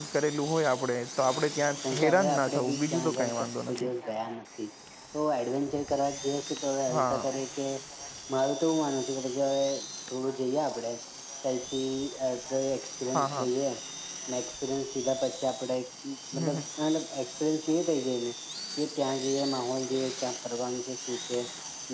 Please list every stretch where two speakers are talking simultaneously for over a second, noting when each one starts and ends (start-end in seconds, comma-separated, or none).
1.9-3.9